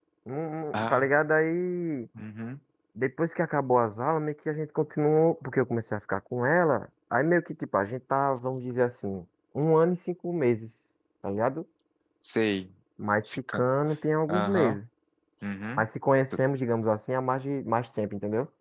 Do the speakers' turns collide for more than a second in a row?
No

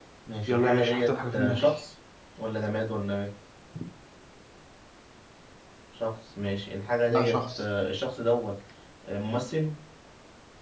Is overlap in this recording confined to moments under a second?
No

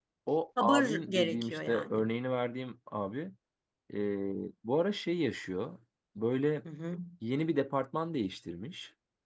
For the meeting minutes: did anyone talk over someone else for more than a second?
Yes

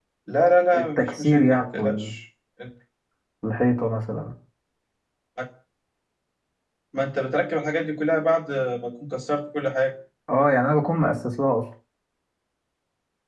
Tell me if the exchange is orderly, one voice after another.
No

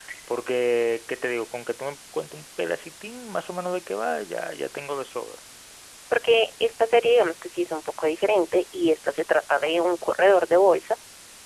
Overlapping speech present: No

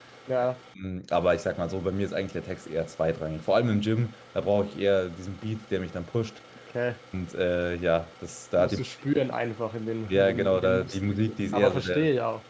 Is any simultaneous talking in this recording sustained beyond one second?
Yes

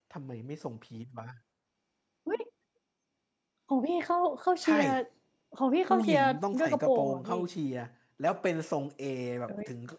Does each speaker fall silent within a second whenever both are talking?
No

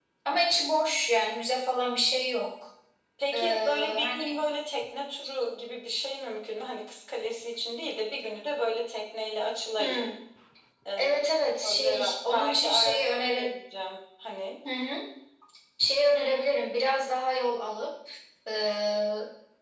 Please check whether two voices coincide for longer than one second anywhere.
Yes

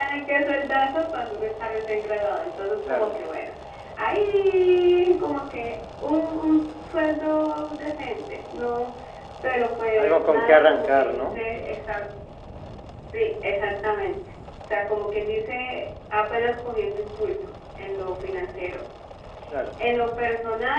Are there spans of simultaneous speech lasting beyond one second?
Yes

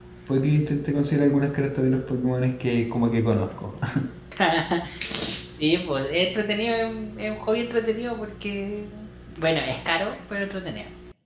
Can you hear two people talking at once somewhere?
No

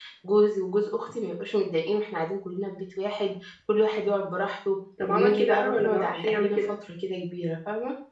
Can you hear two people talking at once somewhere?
Yes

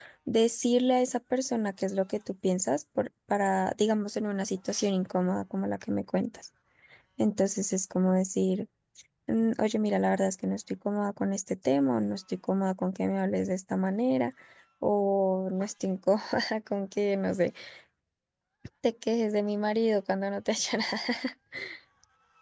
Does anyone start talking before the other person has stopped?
No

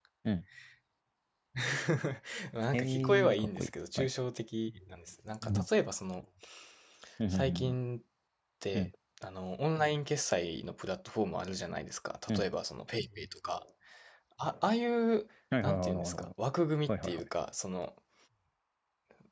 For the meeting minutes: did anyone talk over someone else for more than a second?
Yes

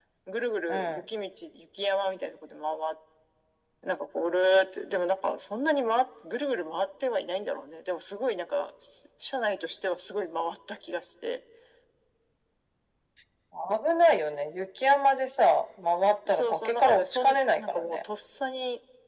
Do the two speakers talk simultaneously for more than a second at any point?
Yes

